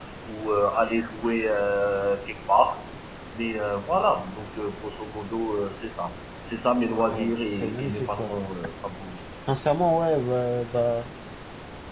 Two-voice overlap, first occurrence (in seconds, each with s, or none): 7.1 s